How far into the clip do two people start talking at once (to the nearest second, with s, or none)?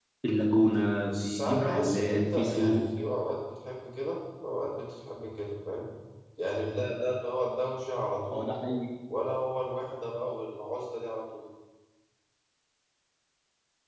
1 s